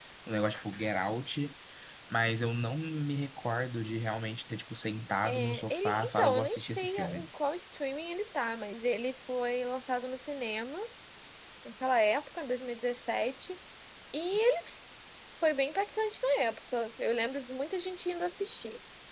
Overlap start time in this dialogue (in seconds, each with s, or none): 5.2 s